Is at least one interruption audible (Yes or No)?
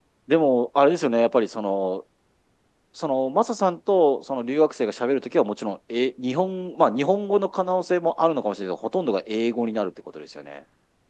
No